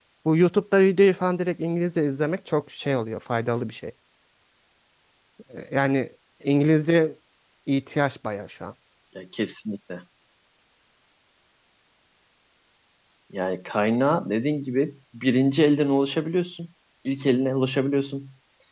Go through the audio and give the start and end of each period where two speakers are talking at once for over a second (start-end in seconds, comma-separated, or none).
none